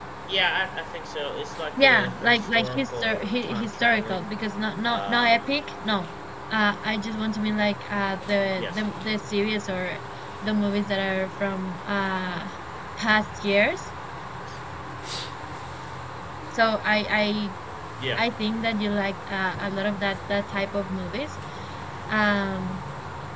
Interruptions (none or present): present